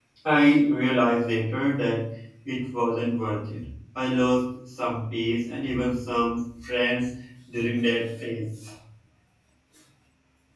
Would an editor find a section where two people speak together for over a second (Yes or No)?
No